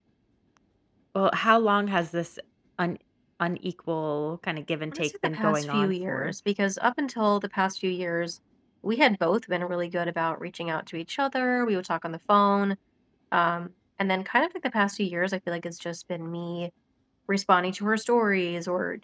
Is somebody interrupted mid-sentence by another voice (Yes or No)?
Yes